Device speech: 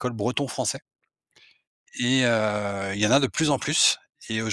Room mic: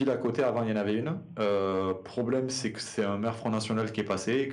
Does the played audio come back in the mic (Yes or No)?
No